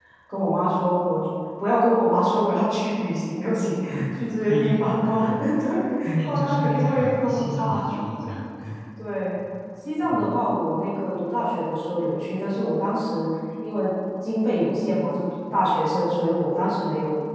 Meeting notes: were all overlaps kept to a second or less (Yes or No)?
No